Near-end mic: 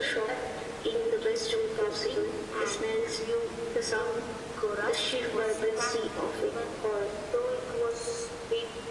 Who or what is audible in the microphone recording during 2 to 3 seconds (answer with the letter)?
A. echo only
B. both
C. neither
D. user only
A